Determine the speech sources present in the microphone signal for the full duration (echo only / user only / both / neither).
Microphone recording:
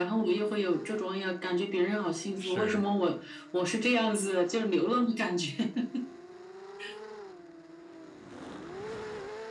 both